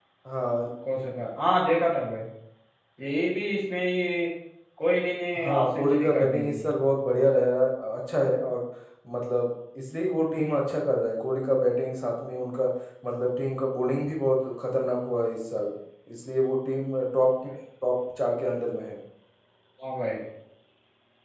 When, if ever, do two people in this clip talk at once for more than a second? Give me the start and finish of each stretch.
5.4-6.7

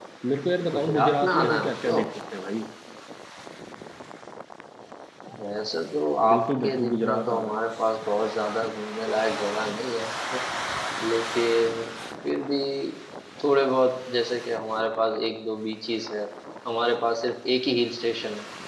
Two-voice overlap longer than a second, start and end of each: 0.7-2.0, 6.3-7.5

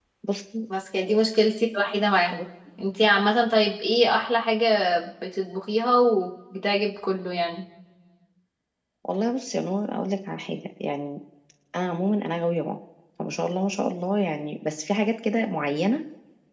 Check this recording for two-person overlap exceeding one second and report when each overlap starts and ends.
none

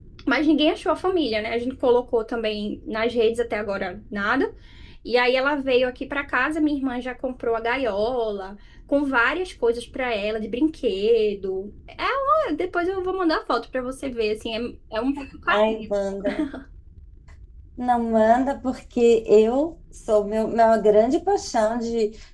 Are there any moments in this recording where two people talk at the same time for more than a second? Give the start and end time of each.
none

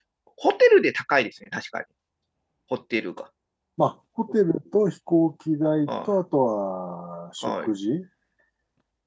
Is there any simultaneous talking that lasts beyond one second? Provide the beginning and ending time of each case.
none

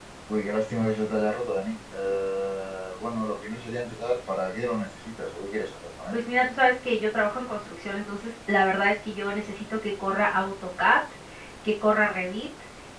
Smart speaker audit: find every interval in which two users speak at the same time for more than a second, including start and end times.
none

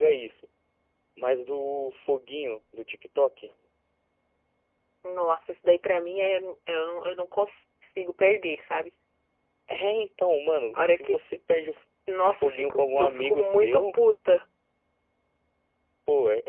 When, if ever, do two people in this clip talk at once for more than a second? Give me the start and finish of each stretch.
12.3-14.0

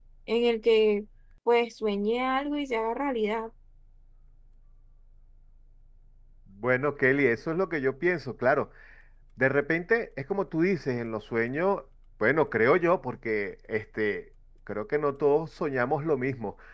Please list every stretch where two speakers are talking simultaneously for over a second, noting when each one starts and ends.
none

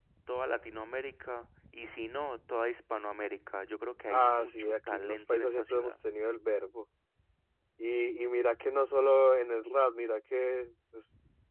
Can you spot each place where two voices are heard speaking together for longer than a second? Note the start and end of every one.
4.1-6.0

